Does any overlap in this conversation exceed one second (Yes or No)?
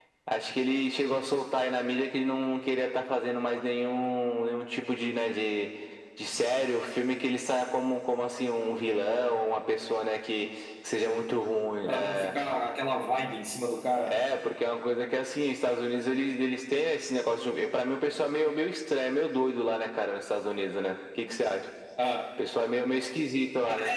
No